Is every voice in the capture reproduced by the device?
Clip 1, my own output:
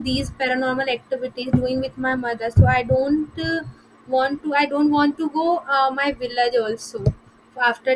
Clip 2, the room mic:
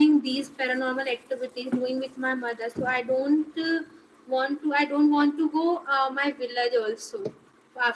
Yes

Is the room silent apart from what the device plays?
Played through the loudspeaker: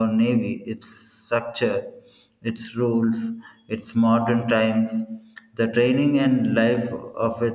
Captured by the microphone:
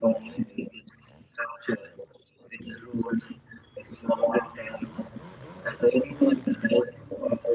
Yes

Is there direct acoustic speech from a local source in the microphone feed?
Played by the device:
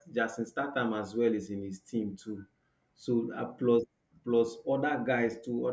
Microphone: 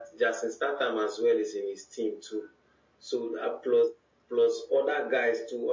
No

